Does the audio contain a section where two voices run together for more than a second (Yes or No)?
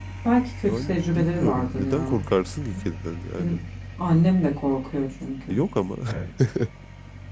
Yes